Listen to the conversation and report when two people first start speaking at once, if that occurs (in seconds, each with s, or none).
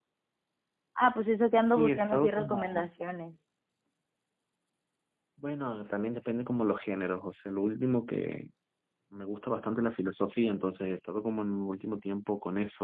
1.5 s